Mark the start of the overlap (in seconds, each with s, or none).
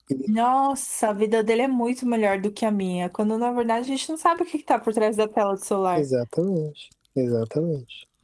none